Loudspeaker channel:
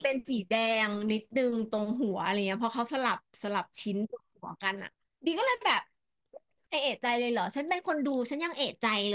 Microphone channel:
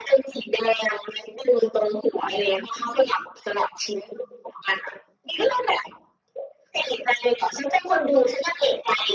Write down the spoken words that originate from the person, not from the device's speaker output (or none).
none